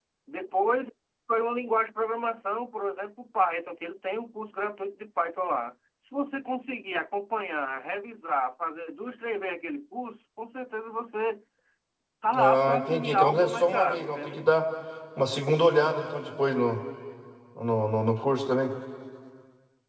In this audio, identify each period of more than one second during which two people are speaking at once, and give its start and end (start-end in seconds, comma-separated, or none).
12.4-14.4